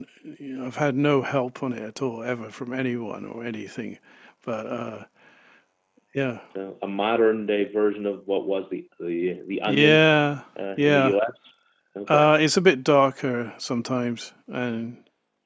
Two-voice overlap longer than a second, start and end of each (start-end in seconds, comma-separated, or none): none